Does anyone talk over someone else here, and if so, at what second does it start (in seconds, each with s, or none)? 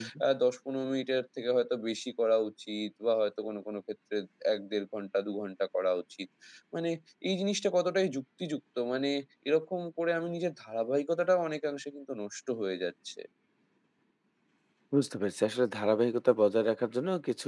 none